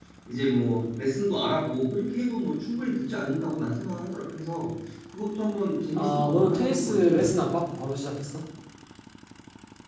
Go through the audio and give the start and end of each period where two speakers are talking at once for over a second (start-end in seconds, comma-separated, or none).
5.9-7.3